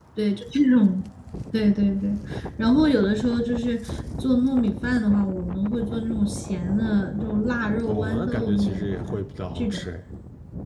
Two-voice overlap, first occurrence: 7.9 s

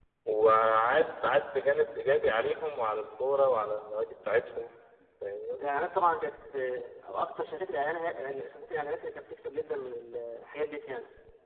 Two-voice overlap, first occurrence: none

